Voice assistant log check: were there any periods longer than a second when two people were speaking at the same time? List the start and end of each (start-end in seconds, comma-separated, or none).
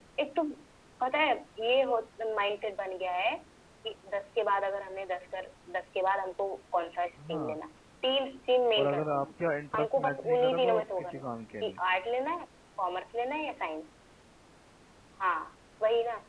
9.8-11.2